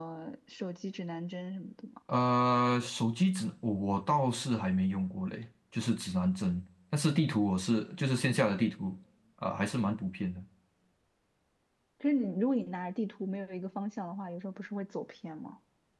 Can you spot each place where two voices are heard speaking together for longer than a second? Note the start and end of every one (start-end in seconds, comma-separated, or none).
none